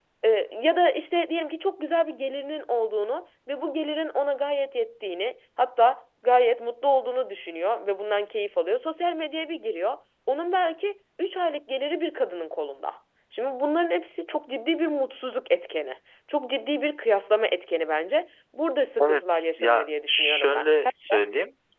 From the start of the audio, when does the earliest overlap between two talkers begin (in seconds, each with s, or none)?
19.0 s